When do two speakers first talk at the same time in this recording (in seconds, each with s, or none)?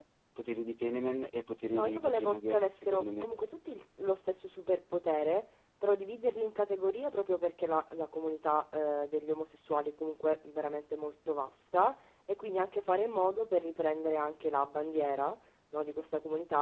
1.7 s